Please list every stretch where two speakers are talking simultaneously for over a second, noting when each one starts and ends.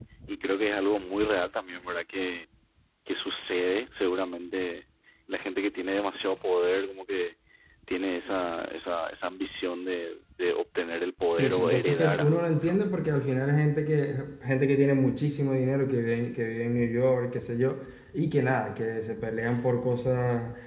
11.3-12.8

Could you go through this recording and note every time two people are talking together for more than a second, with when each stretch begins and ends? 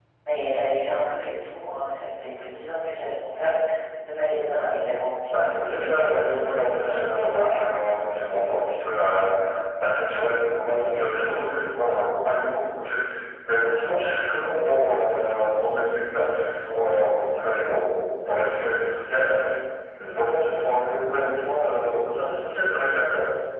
5.3-7.5

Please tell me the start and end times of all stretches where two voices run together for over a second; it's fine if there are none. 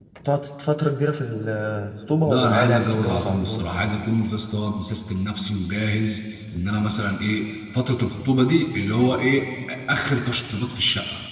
2.3-3.6

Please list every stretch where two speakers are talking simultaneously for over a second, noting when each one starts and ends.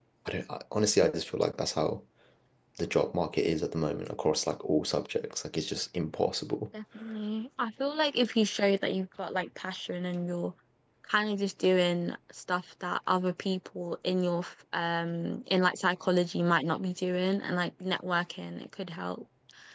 none

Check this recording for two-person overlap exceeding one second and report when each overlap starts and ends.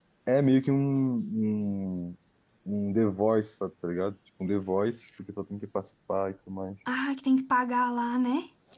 none

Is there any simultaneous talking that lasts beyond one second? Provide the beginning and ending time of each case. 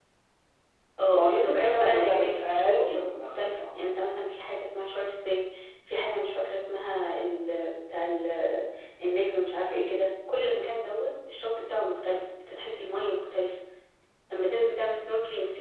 1.1-3.6

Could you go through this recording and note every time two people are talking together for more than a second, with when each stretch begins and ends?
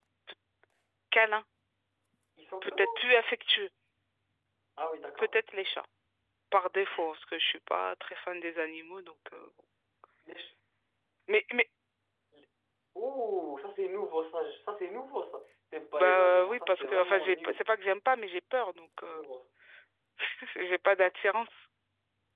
16.0-17.6

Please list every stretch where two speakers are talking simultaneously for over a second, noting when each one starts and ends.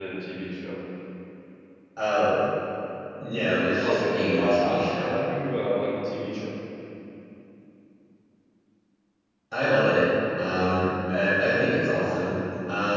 3.8-5.1

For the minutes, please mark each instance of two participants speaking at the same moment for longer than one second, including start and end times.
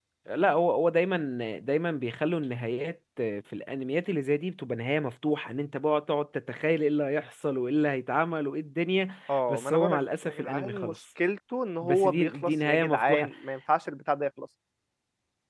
9.5-10.9, 11.8-13.3

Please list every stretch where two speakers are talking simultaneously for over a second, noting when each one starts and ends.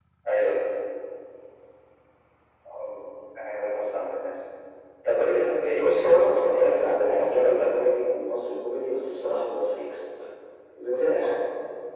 5.7-7.9

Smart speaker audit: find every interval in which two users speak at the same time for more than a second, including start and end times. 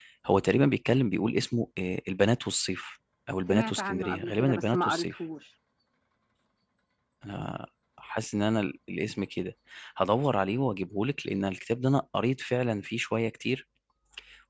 3.5-5.2

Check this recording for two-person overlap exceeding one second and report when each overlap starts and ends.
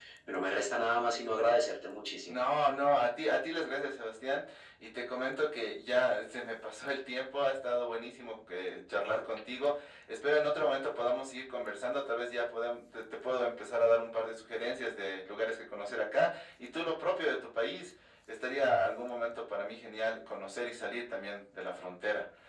none

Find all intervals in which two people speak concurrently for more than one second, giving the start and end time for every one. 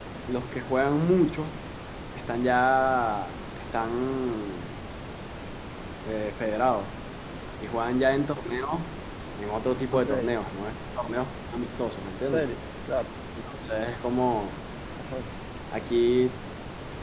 none

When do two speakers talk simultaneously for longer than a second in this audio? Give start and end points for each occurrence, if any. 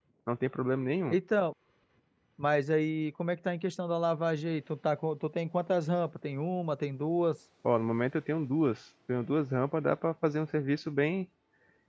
none

